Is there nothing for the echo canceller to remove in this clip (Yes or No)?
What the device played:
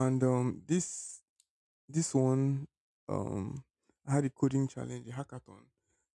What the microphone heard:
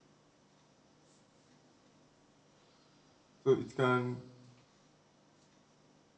Yes